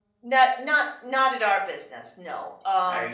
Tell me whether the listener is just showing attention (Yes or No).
Yes